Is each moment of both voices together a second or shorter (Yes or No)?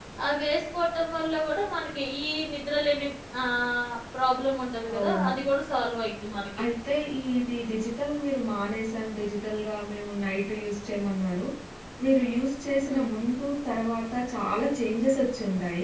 Yes